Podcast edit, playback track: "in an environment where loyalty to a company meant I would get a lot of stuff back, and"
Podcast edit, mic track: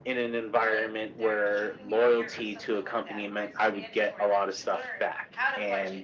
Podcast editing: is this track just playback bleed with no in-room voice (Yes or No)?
No